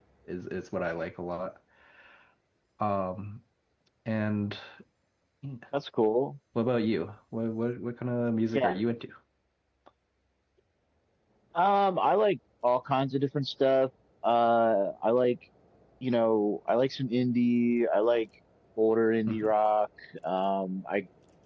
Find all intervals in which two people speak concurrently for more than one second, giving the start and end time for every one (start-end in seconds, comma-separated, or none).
none